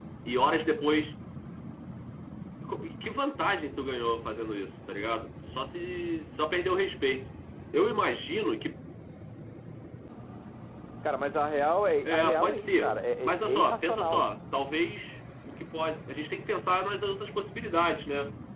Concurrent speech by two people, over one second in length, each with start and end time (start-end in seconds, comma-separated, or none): 12.0-14.3